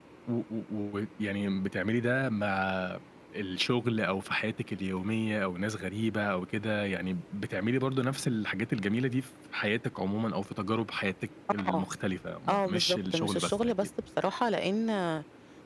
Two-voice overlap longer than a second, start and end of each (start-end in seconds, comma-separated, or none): 12.5-13.7